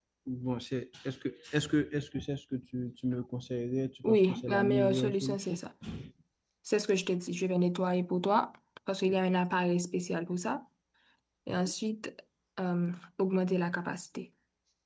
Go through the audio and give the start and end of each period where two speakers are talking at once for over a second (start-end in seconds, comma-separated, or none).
4.0-5.6